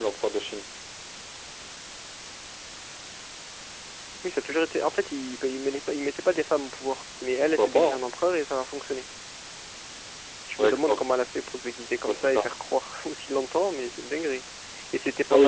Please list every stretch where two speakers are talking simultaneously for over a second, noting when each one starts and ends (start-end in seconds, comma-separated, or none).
none